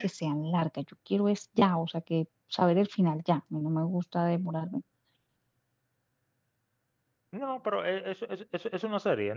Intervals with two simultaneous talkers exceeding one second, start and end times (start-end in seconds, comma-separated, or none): none